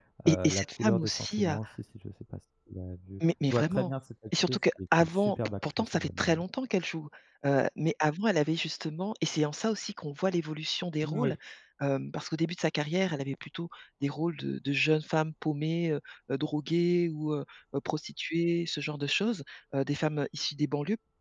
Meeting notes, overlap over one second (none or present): present